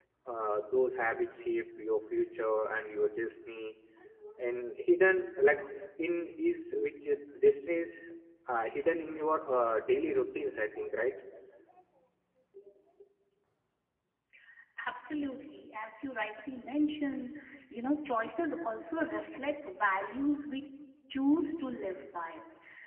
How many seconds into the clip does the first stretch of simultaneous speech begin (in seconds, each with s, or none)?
none